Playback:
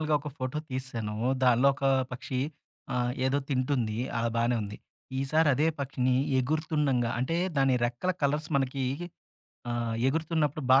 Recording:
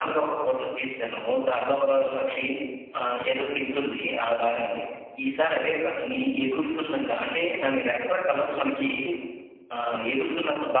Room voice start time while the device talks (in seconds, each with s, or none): none